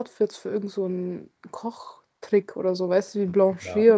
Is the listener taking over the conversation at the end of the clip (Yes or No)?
Yes